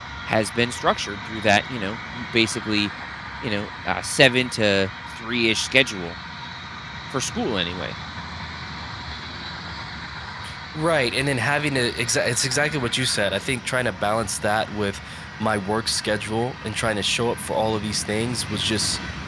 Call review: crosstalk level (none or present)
none